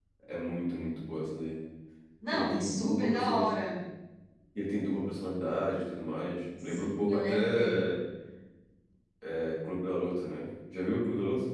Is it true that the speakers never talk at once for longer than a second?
No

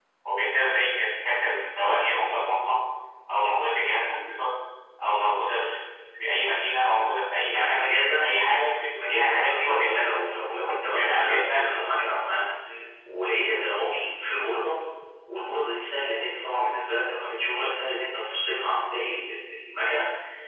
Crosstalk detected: Yes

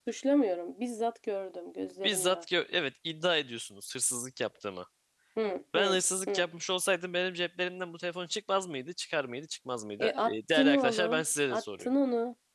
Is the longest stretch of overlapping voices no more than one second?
No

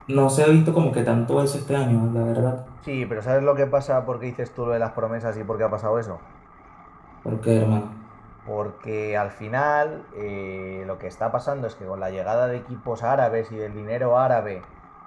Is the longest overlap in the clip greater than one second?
No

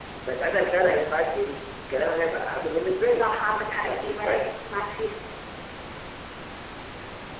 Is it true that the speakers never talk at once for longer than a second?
No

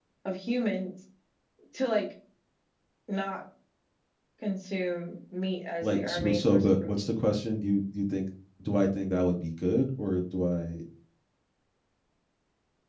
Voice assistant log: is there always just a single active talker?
No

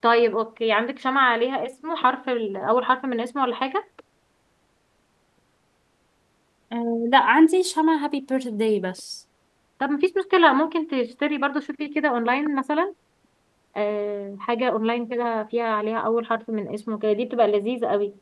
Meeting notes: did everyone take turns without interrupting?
Yes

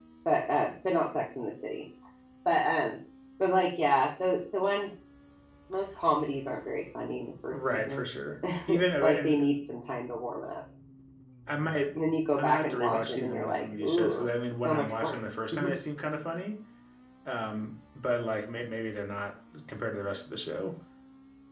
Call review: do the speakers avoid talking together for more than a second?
No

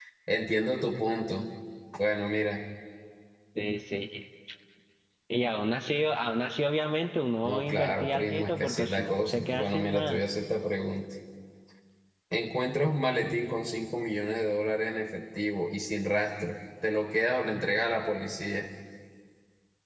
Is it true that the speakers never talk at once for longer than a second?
No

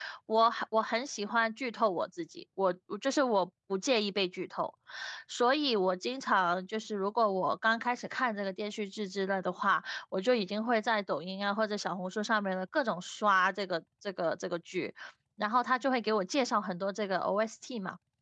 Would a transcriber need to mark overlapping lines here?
No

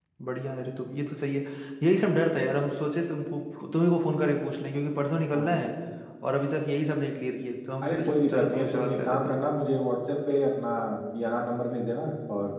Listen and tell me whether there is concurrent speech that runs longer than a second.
Yes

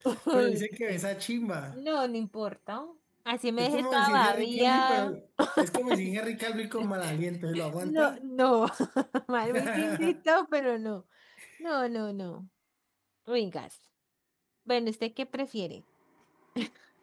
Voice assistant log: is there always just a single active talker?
No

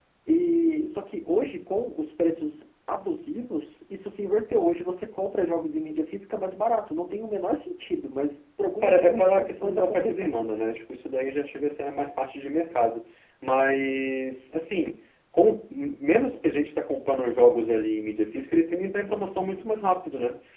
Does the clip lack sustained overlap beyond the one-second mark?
No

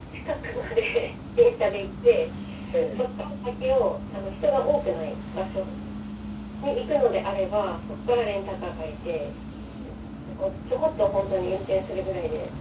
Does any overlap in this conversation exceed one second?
No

